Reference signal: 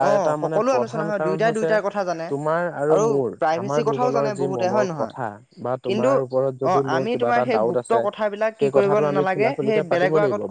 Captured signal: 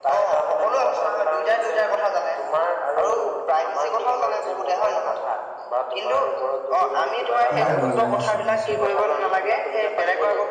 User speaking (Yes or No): Yes